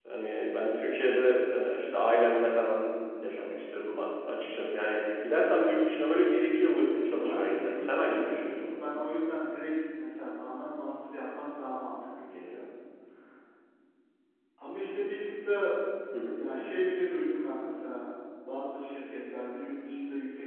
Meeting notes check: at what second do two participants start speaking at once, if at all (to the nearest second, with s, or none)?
7 s